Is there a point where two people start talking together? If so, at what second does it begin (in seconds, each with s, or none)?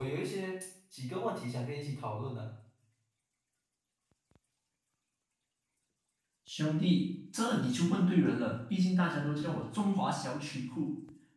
none